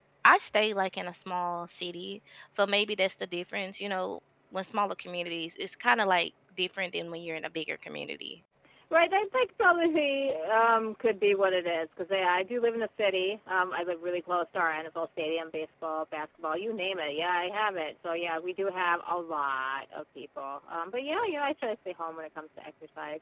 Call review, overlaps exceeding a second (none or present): none